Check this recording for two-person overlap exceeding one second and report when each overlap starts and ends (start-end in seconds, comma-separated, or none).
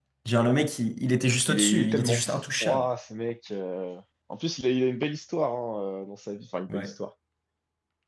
1.5-2.9